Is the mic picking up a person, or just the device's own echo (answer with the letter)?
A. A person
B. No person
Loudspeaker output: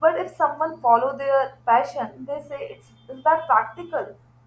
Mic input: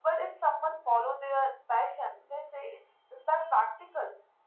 B